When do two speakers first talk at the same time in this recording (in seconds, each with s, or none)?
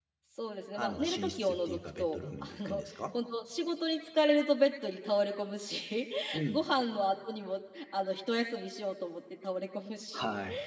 0.7 s